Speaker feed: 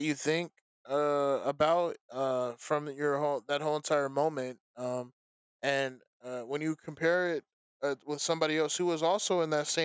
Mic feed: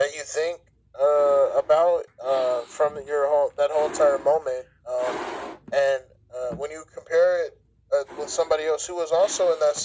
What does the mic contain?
echo only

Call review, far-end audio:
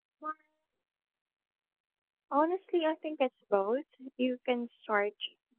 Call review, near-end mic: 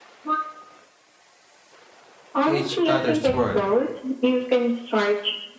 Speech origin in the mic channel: both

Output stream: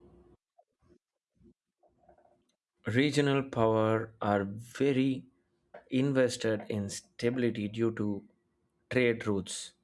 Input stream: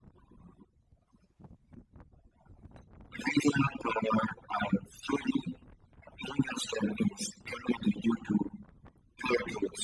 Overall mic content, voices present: echo only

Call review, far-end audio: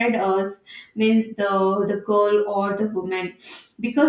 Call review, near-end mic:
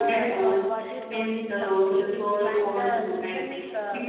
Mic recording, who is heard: both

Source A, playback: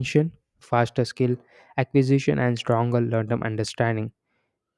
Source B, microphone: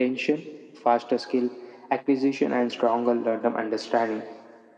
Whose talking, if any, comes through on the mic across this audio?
echo only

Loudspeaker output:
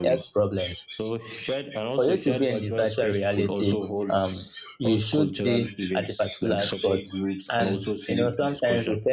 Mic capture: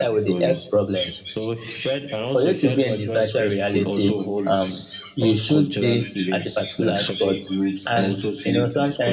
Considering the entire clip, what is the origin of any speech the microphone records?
echo only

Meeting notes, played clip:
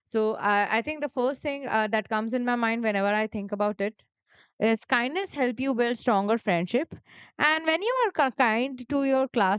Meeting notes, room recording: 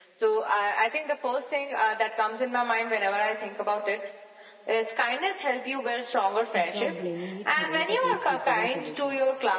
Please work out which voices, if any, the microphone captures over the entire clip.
both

